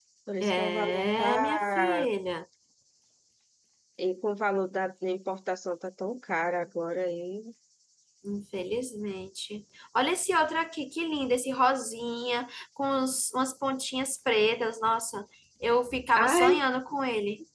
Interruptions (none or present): present